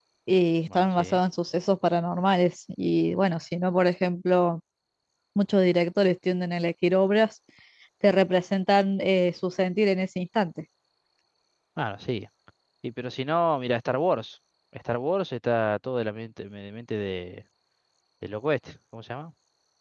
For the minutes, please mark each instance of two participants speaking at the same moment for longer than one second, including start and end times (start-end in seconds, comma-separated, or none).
none